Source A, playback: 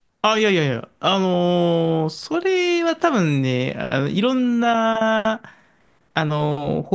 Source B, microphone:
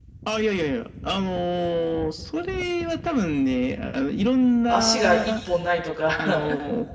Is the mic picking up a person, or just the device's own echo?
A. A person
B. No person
A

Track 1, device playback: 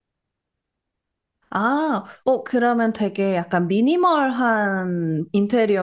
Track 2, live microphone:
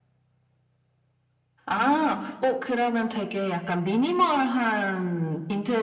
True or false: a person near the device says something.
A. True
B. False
B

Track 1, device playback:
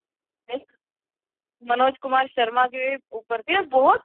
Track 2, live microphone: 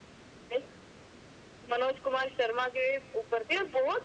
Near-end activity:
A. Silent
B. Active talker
A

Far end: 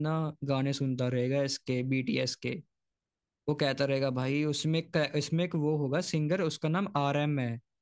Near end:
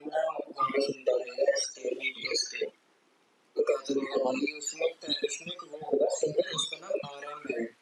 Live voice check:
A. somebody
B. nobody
B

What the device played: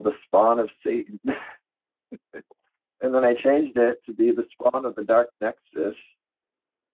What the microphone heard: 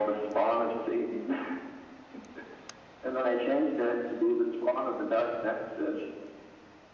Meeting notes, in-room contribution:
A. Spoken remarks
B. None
B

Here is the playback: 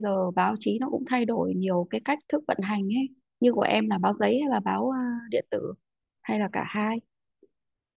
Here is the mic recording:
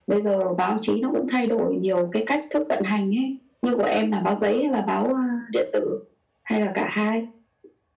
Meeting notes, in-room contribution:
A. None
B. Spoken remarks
A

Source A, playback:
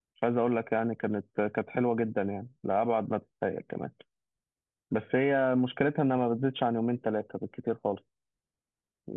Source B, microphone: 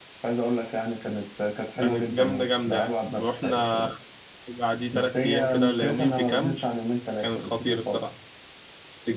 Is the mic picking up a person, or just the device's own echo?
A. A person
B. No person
A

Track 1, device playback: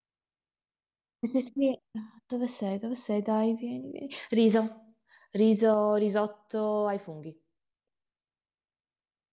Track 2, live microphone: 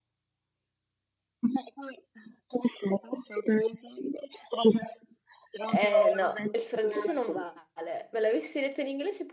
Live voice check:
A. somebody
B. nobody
A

